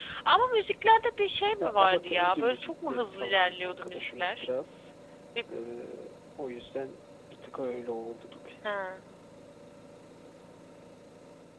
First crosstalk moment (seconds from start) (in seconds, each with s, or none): 1.6 s